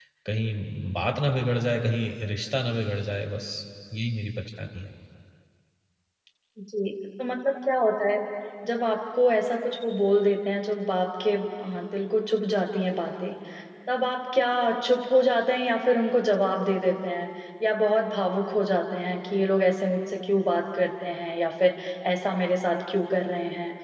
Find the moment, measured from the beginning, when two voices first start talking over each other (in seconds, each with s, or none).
none